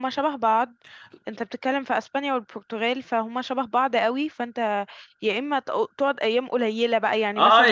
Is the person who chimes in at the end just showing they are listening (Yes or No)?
No